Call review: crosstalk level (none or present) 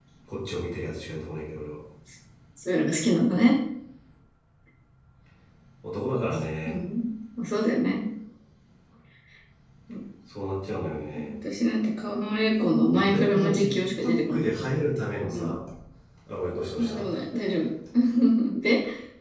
present